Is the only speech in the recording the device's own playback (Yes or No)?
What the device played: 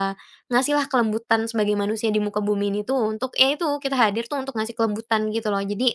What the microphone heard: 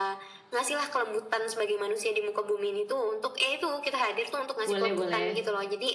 No